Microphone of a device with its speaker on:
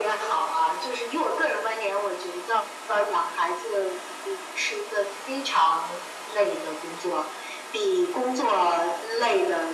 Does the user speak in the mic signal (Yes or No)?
No